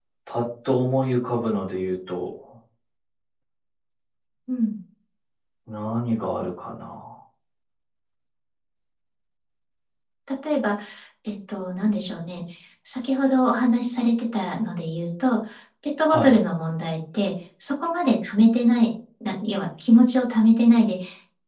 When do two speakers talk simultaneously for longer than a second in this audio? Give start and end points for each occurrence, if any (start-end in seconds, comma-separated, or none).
none